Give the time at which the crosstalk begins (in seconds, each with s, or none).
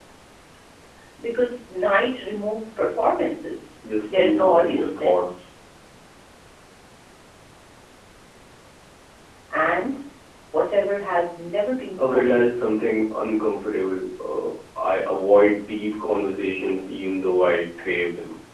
4.0 s